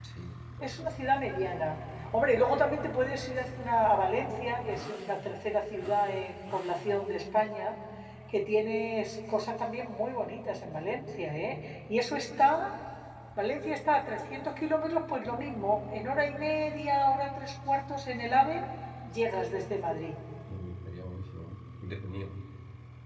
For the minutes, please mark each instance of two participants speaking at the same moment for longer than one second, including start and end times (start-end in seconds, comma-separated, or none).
none